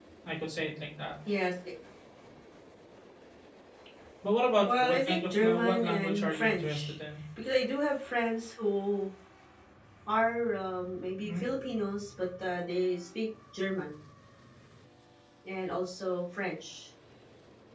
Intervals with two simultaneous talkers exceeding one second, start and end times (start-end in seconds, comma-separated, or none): 4.6-6.9